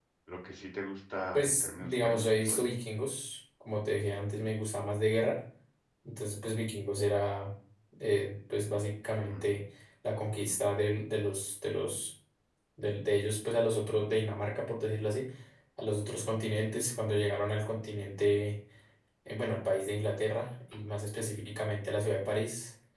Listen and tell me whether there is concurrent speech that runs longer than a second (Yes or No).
Yes